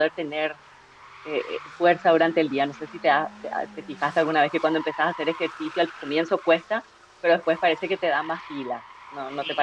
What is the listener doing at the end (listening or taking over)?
taking over